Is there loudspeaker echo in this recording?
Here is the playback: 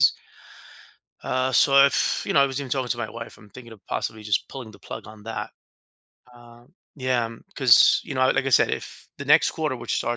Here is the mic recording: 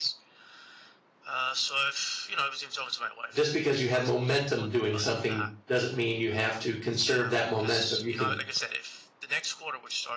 Yes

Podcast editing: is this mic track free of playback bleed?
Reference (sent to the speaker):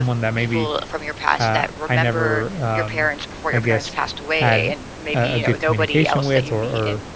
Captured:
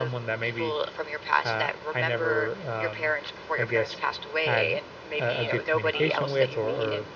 No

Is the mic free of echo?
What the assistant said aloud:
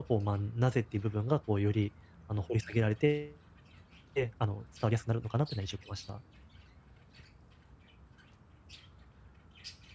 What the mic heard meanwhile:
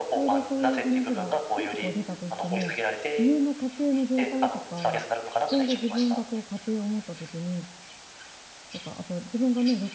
No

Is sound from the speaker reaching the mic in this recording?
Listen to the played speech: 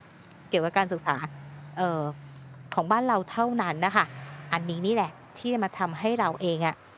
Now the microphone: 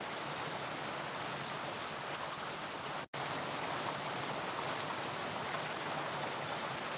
No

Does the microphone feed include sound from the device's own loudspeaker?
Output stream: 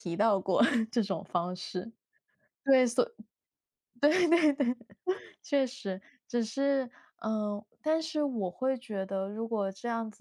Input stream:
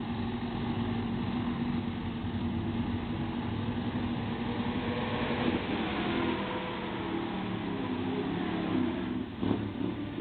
No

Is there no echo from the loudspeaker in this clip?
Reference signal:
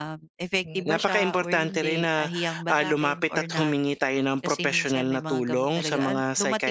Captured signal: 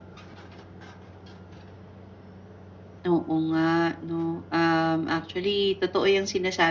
Yes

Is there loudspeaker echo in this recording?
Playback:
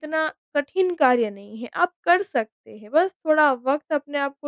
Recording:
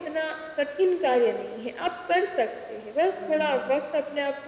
Yes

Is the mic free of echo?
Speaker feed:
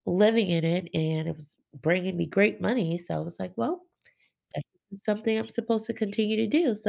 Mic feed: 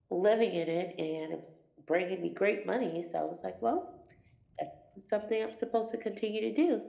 No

